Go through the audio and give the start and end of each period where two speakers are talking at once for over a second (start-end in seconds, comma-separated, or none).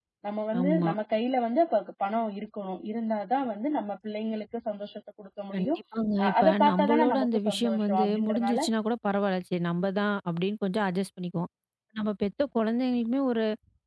6.2-8.6